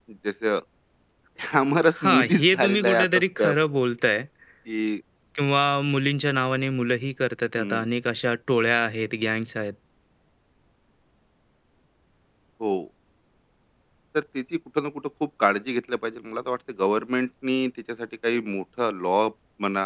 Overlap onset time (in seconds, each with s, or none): 2.0 s